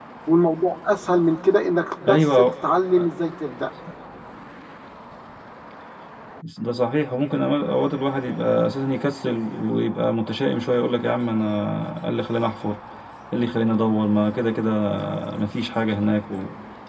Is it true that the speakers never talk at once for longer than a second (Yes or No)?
Yes